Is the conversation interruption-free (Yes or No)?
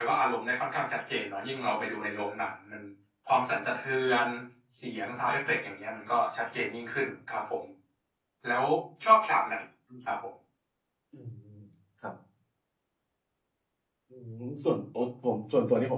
Yes